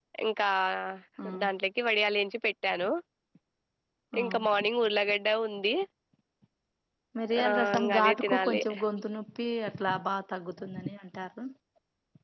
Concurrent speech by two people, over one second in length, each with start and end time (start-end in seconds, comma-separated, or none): 7.4-8.6